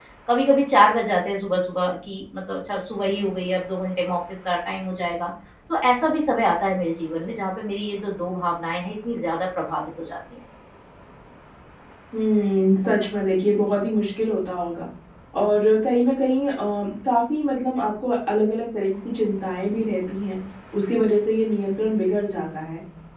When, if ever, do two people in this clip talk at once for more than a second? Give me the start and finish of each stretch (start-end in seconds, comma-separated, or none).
none